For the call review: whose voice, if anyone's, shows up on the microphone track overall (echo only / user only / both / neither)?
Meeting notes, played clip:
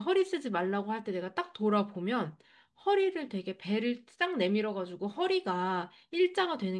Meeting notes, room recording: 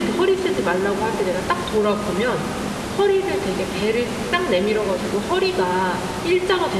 echo only